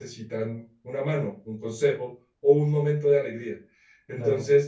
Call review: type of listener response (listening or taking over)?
listening